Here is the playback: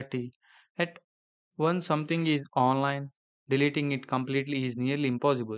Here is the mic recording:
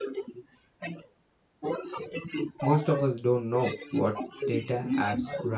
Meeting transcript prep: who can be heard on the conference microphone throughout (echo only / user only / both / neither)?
both